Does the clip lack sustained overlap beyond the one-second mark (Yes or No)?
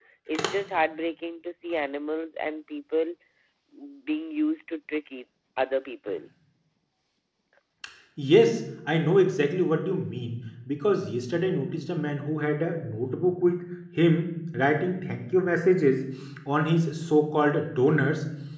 Yes